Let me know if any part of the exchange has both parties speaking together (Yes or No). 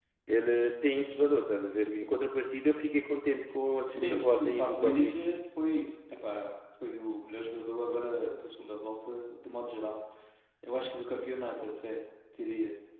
Yes